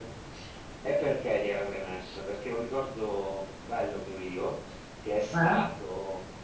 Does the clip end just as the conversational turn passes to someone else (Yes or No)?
No